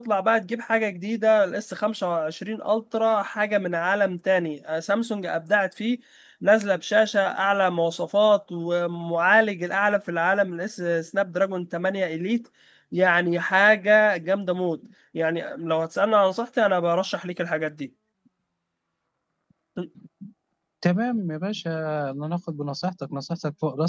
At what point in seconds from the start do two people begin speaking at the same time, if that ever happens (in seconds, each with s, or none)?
none